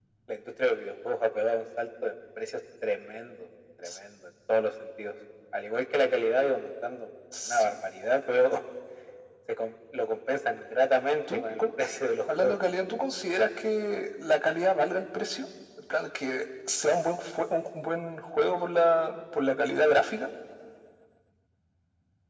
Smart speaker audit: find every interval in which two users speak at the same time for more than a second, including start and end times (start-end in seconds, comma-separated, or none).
none